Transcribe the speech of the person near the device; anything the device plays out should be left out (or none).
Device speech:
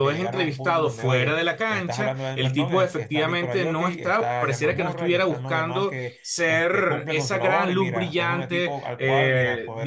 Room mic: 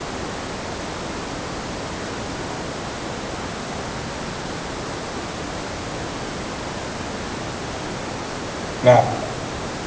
Claro.